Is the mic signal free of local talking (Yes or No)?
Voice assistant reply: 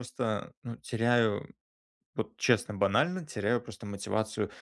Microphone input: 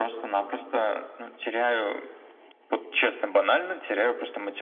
Yes